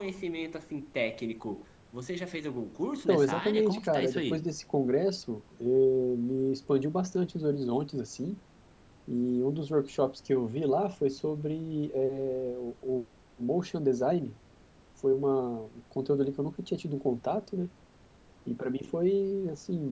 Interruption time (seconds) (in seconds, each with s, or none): 3.1 s